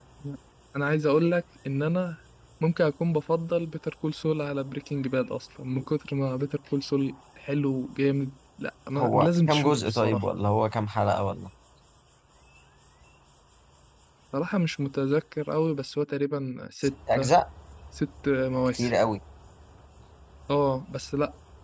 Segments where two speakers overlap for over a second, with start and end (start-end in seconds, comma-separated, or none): 9.0-10.2